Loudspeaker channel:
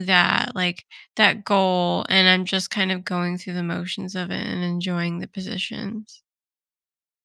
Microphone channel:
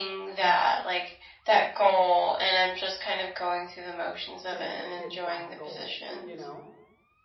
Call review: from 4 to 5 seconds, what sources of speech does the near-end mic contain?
both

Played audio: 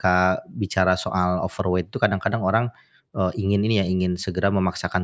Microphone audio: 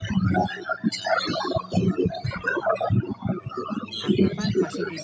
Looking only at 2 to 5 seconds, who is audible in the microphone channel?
both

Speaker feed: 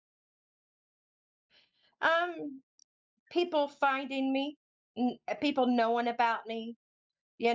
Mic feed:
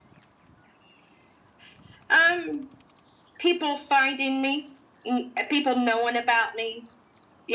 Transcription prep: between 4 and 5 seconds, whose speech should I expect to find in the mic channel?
echo only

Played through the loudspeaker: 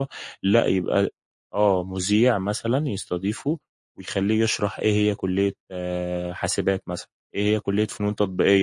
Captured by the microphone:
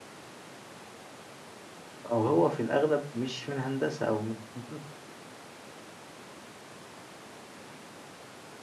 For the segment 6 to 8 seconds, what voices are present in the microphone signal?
neither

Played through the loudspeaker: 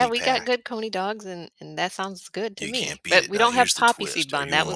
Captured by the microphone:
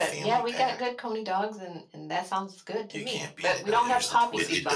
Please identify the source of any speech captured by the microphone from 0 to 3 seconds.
echo only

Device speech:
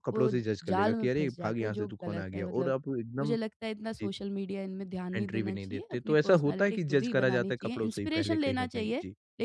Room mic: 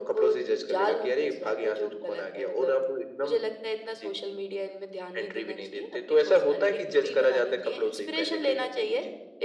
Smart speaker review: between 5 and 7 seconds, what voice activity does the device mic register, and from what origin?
echo only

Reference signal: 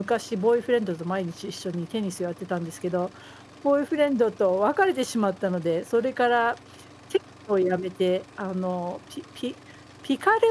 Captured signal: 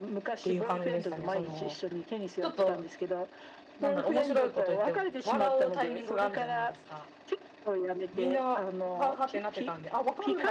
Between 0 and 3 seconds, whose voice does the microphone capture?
both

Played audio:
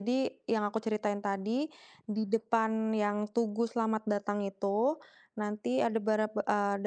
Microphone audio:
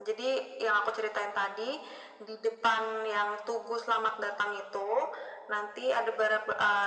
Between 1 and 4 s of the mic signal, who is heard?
echo only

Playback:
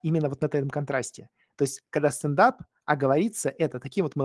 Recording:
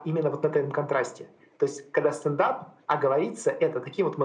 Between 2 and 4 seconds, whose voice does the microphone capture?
echo only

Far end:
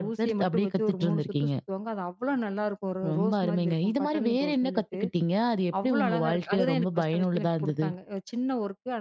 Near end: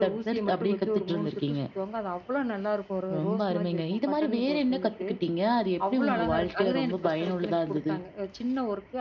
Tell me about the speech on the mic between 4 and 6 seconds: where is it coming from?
echo only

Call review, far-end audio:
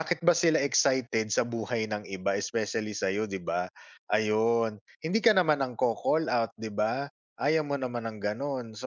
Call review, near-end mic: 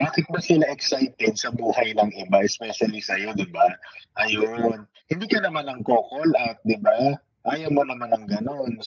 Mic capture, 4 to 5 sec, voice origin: echo only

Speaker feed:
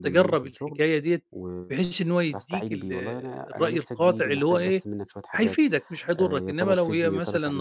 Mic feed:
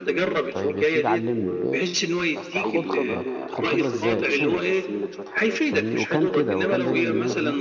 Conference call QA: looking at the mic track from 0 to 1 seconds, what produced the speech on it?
both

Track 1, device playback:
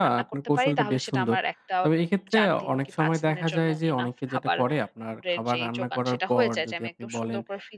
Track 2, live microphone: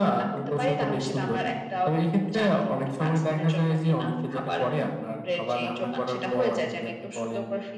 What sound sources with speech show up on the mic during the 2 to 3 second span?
echo only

